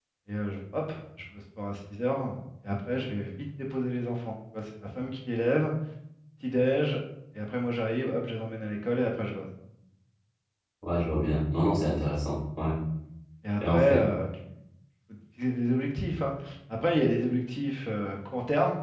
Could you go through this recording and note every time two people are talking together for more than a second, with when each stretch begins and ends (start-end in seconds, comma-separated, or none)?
none